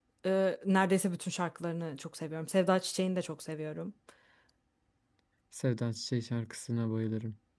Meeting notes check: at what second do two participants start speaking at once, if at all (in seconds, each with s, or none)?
none